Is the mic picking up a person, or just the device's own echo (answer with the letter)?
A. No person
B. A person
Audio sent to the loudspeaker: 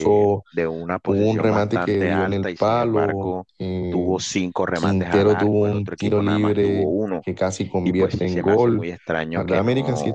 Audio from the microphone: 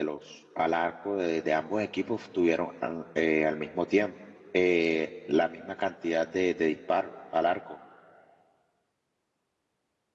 B